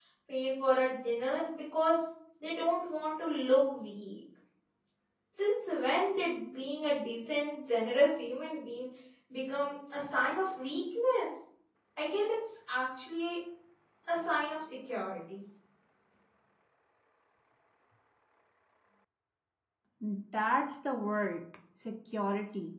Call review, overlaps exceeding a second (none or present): none